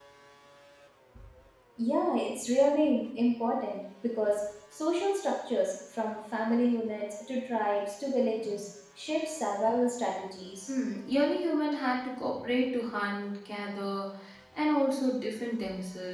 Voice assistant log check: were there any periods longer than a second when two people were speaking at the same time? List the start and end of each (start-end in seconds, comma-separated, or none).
none